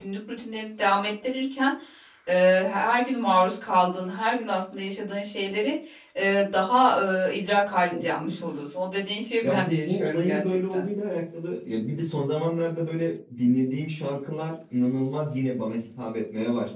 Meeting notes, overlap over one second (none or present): present